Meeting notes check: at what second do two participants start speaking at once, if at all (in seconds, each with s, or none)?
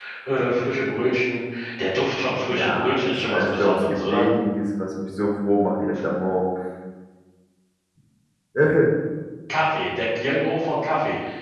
2.5 s